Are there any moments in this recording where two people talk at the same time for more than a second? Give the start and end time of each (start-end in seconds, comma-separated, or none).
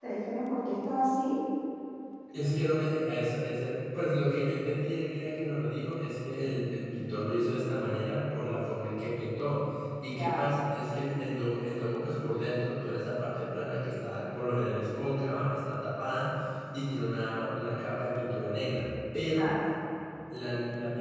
none